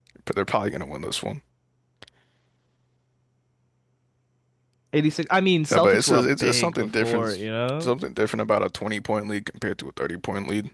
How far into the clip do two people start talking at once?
6 s

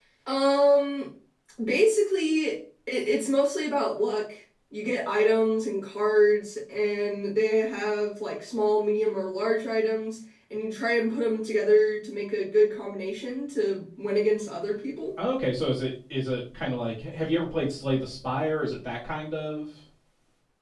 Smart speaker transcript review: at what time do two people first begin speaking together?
none

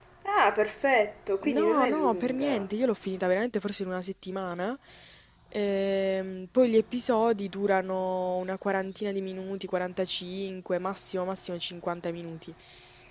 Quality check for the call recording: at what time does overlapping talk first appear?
1 s

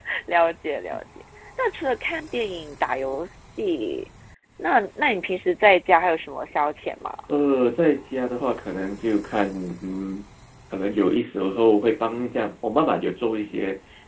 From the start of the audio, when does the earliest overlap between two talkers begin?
none

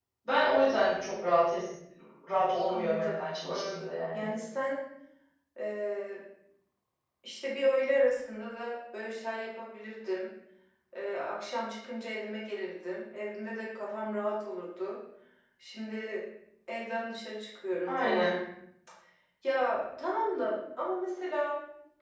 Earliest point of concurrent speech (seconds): 3 s

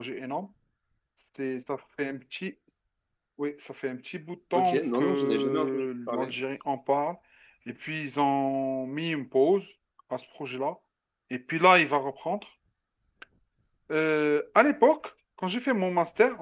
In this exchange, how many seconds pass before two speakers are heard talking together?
5 s

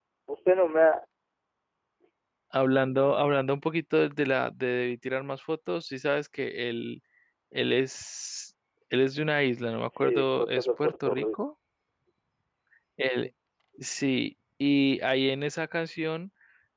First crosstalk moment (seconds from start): 10 s

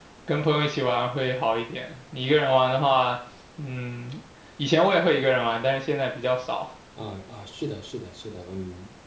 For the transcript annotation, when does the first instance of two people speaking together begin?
none

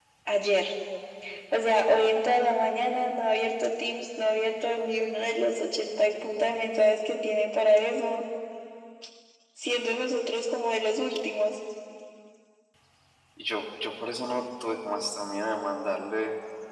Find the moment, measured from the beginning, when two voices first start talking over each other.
none

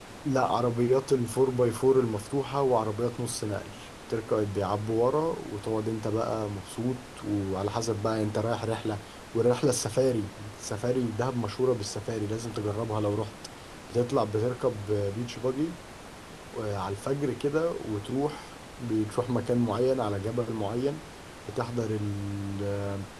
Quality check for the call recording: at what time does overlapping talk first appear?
none

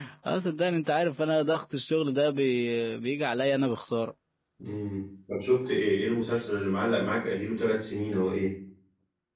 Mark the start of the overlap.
none

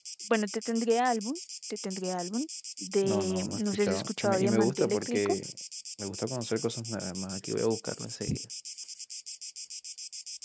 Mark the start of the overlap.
3 s

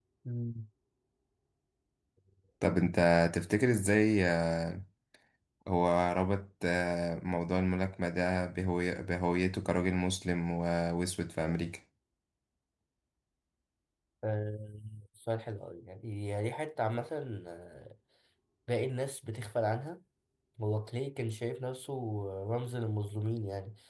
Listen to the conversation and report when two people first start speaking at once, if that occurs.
none

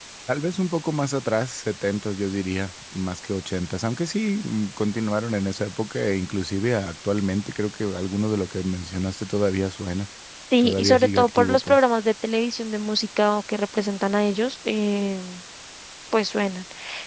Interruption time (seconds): 11 s

